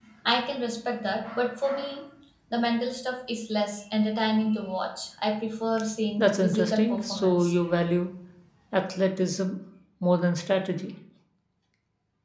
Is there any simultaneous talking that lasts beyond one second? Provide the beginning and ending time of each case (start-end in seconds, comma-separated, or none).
6.2-7.5